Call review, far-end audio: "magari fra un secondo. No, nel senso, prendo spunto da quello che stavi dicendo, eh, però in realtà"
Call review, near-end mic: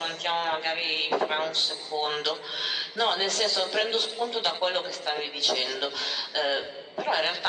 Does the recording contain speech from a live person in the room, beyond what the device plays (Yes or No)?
No